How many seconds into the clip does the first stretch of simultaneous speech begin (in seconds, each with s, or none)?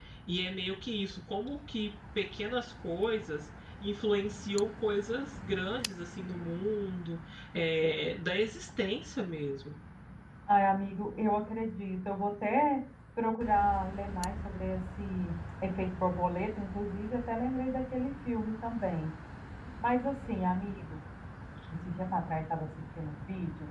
none